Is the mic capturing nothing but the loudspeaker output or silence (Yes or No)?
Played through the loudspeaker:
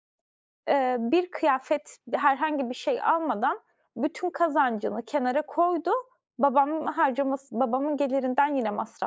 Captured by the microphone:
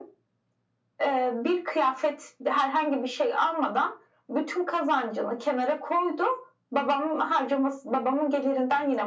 Yes